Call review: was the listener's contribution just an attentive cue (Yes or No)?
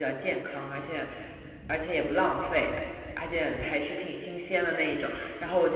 Yes